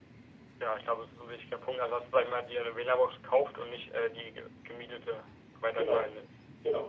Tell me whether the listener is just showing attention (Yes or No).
No